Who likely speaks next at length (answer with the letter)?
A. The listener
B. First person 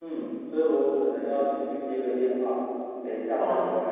B